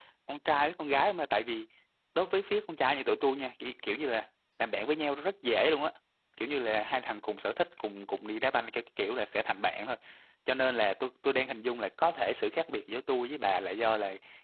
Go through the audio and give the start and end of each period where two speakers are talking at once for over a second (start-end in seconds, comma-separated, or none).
none